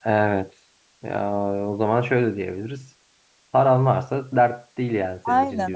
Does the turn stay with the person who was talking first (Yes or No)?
No